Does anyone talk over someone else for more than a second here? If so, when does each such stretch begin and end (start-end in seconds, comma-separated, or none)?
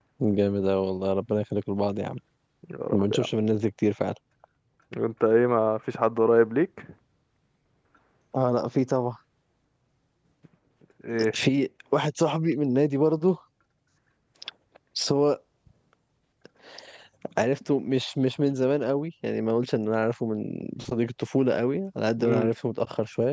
none